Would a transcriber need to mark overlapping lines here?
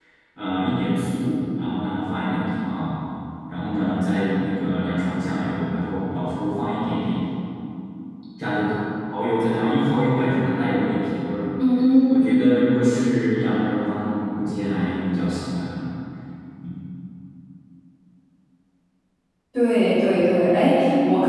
No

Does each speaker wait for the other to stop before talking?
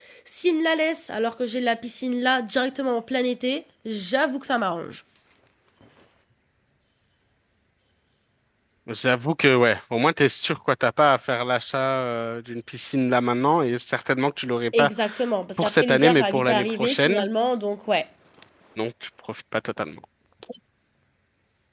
No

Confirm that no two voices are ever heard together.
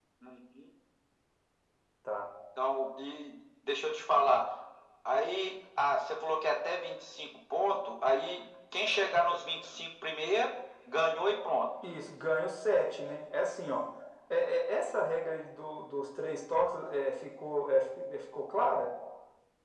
Yes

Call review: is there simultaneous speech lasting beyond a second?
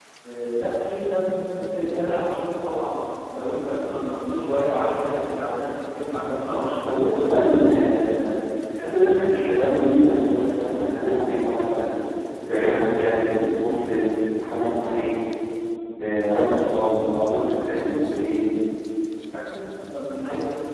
No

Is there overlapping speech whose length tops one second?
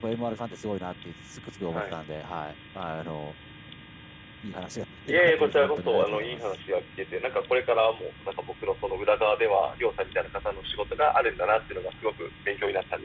Yes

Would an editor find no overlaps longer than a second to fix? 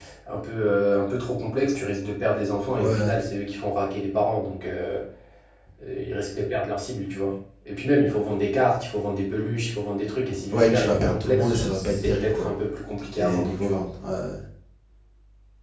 No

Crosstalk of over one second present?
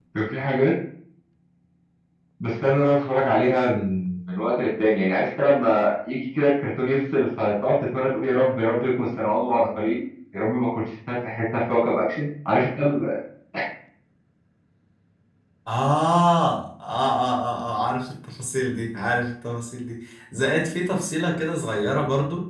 No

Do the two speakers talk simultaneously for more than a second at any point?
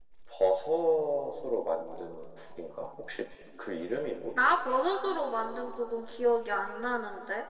No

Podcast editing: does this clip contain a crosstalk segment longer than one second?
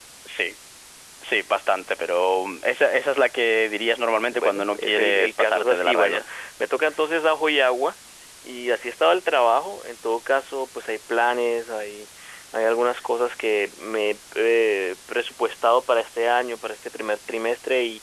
Yes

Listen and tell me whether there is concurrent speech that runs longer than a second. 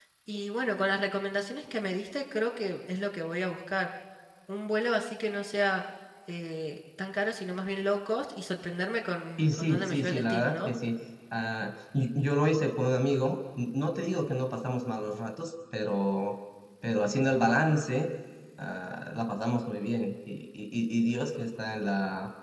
Yes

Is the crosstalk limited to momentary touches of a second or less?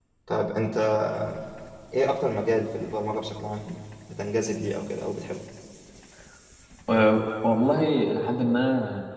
Yes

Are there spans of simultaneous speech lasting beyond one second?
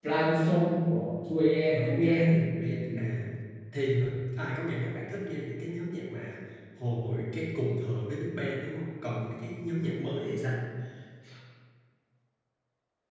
Yes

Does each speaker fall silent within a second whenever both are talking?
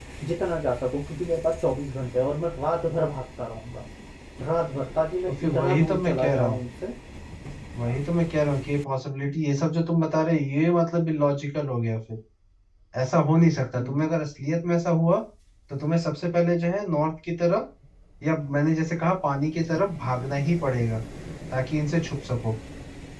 No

